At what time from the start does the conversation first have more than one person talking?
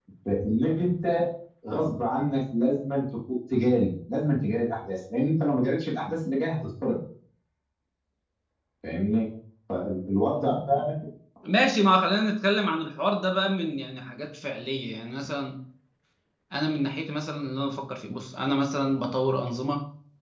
none

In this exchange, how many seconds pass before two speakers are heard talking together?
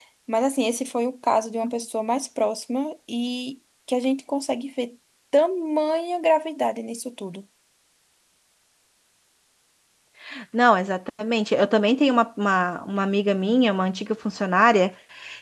none

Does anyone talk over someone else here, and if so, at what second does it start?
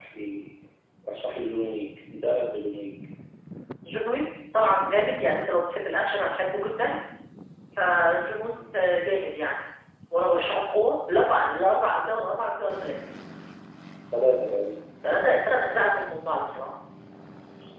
none

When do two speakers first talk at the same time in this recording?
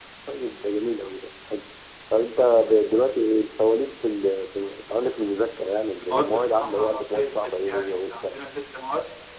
6 s

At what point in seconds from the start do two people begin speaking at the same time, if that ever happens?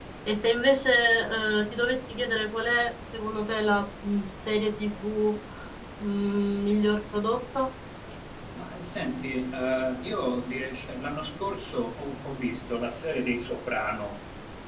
none

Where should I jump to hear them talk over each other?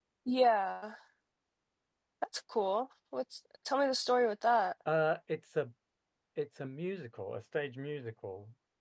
none

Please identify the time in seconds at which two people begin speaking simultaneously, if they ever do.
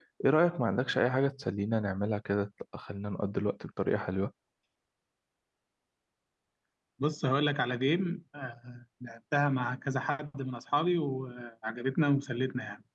none

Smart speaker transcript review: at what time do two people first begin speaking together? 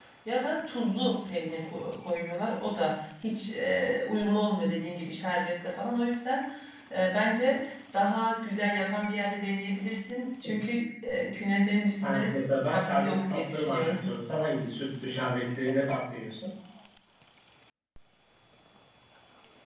12 s

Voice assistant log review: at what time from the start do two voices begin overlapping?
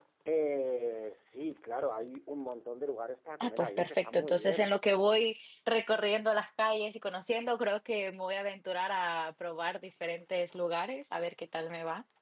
3 s

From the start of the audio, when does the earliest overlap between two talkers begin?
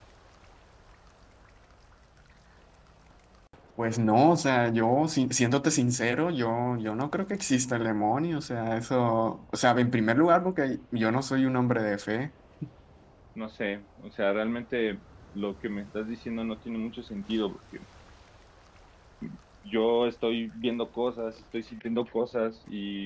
none

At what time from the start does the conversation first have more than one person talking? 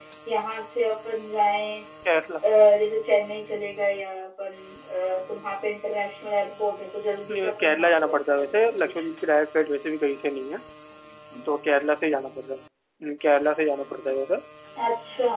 7 s

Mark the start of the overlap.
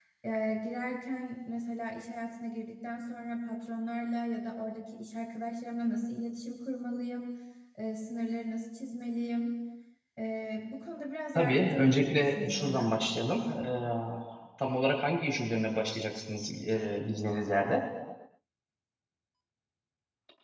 11 s

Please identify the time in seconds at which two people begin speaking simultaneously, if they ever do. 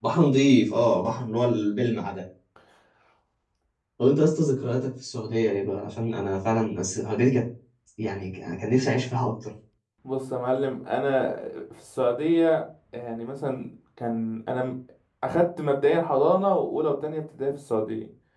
none

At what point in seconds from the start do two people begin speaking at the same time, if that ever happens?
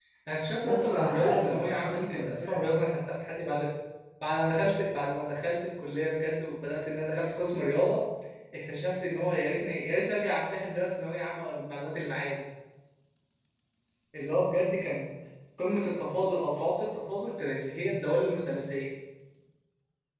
1 s

